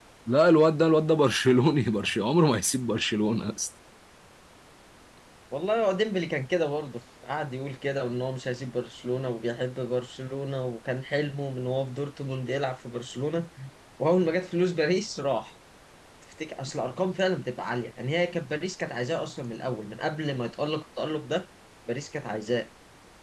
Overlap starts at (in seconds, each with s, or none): none